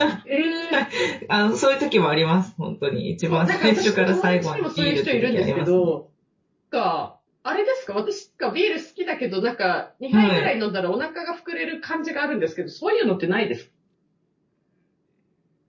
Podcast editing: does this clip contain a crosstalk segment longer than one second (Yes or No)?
Yes